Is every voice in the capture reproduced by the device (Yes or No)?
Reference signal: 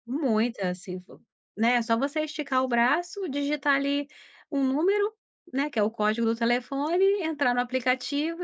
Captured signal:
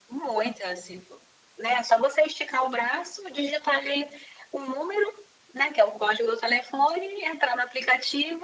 Yes